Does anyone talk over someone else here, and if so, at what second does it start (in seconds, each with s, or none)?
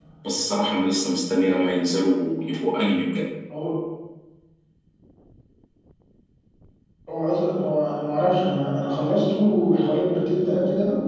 none